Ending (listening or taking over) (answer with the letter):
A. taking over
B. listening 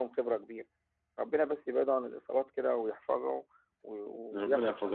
A